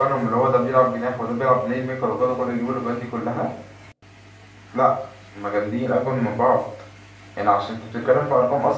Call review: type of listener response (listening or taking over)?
listening